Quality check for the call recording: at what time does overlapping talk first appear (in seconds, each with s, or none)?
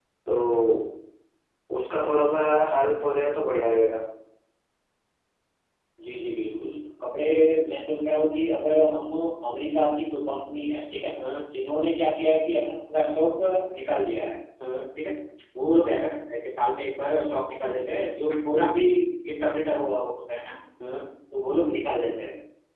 none